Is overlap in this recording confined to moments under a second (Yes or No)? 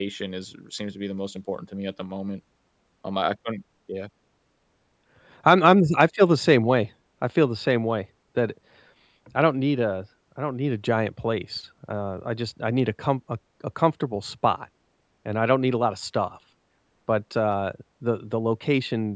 Yes